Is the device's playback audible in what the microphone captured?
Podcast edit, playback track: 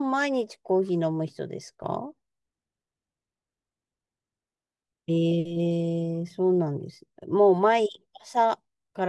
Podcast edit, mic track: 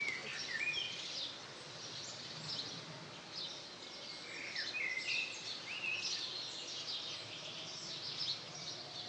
No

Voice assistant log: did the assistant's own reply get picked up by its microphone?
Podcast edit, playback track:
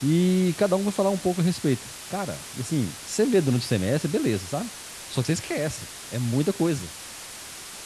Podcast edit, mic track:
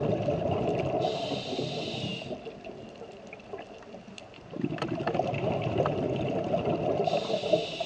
No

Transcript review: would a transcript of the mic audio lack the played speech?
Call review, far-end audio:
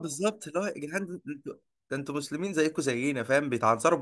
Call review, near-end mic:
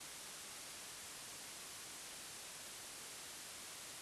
Yes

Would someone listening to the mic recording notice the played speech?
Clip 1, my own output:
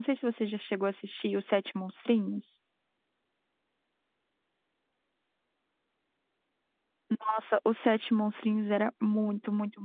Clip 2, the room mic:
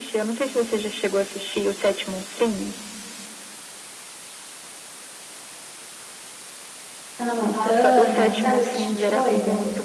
Yes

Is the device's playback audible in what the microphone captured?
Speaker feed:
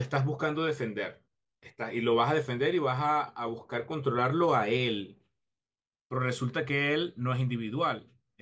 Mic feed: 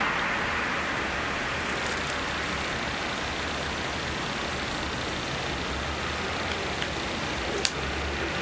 No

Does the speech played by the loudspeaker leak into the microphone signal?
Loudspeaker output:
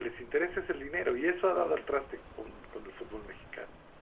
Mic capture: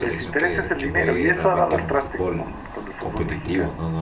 Yes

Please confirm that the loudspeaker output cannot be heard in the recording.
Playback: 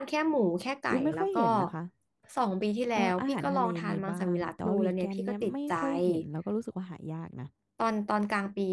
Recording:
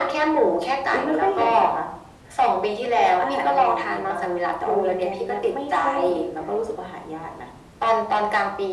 No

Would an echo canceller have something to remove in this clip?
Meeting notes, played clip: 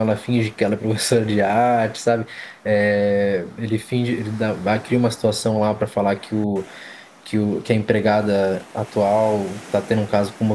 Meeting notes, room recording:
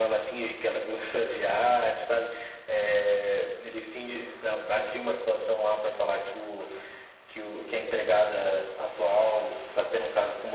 Yes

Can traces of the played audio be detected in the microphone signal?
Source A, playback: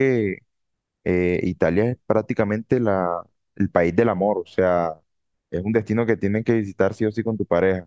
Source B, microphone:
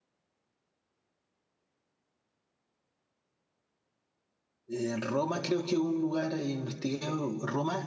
No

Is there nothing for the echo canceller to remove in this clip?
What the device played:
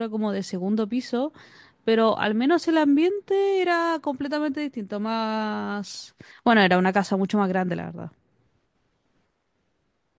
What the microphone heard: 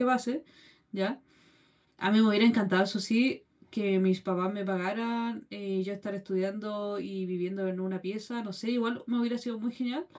Yes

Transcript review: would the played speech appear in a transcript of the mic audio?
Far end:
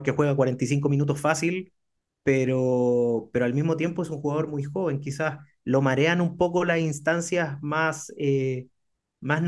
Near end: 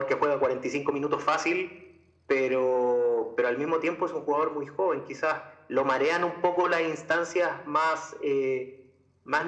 Yes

